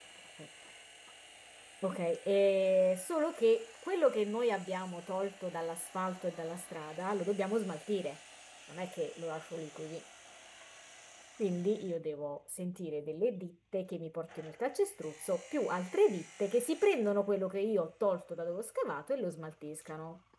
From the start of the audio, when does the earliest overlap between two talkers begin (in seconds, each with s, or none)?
none